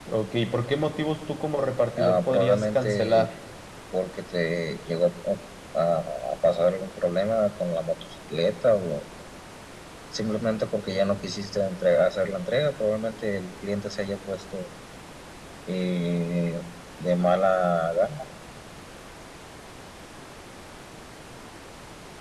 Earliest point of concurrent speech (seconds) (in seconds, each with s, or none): 2.0 s